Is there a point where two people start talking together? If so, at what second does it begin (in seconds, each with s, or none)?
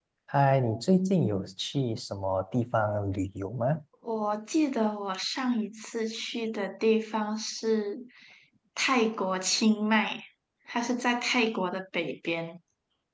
none